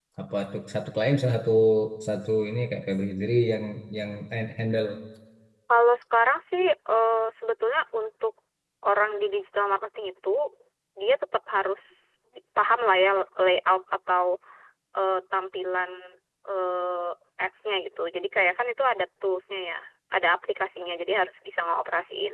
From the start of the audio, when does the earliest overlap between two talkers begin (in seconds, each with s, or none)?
none